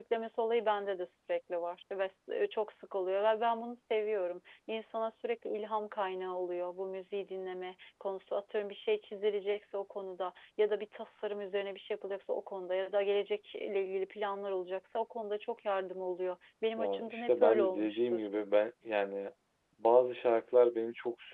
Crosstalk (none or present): present